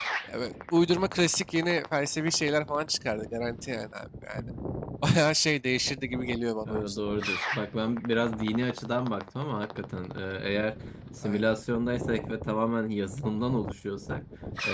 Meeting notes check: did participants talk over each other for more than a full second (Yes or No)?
No